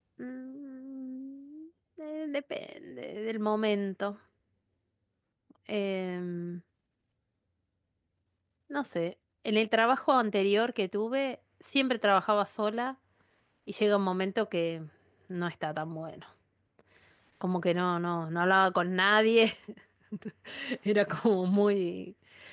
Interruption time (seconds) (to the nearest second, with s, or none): none